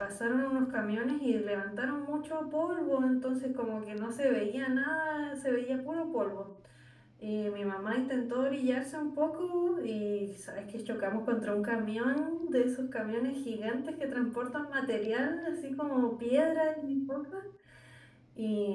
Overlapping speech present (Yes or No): No